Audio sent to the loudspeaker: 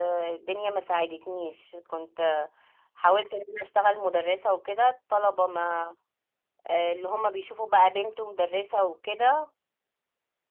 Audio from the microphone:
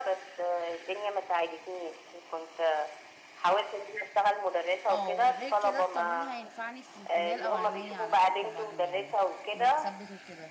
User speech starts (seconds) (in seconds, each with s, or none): 4.9 s